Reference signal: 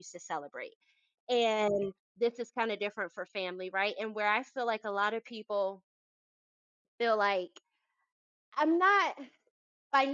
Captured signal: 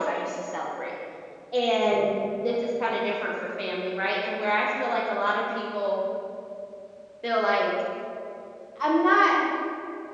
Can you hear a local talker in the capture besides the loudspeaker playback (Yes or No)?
No